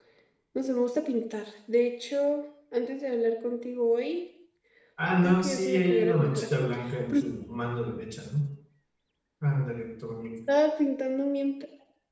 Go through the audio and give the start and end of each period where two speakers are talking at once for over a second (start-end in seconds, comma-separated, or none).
5.2-6.4